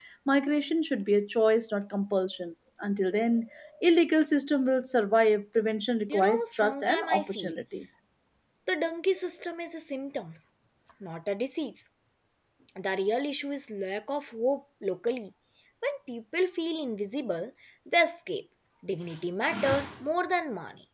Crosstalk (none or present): present